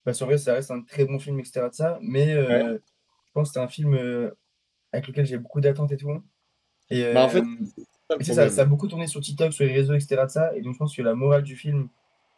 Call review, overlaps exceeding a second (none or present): none